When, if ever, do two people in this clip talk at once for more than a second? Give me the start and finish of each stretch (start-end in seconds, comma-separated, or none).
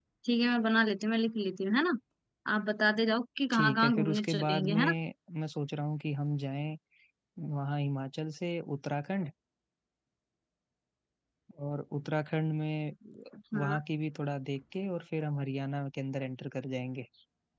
3.5-4.9